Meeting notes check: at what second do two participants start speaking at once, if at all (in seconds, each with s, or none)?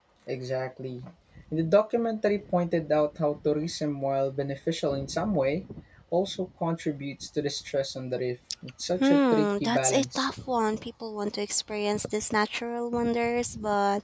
8.9 s